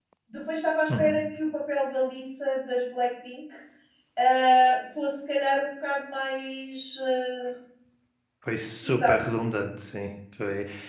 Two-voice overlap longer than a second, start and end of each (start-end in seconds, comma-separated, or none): none